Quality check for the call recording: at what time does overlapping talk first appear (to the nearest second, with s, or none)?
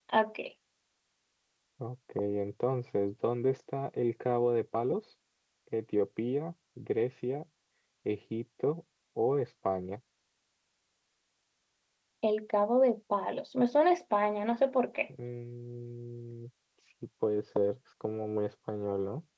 none